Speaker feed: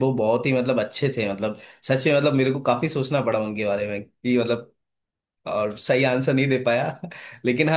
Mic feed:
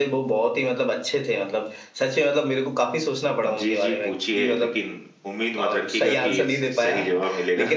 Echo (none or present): present